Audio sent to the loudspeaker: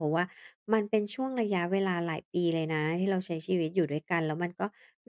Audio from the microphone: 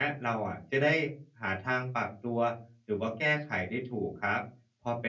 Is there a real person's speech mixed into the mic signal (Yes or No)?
Yes